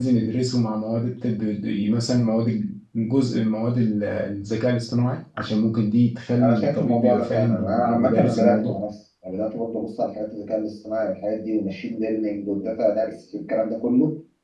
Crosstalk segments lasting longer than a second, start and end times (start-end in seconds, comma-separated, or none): 6.4-8.8